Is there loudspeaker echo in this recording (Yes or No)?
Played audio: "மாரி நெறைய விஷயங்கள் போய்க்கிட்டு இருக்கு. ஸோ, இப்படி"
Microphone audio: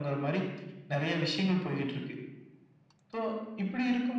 Yes